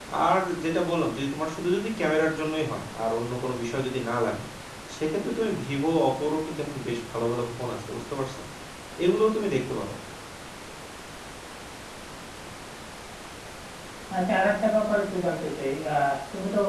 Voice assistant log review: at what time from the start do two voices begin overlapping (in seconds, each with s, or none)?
none